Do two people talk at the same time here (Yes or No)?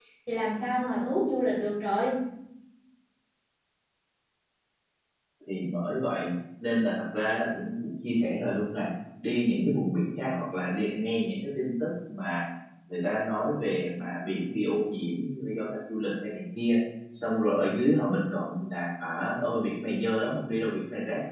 No